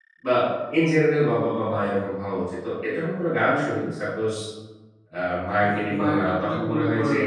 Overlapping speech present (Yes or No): Yes